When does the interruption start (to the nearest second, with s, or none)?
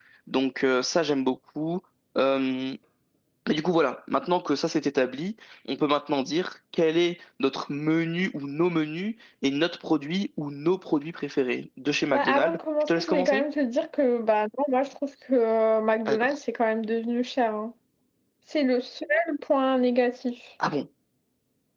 12 s